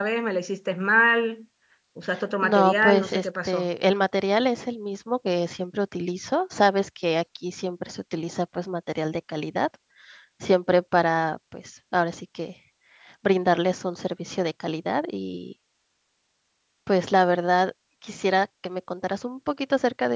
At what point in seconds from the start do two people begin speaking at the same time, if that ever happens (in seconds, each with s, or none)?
2.4 s